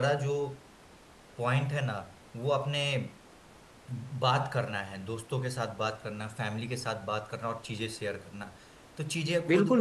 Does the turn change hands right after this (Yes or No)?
Yes